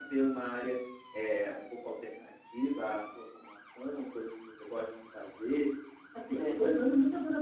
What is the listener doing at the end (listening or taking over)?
listening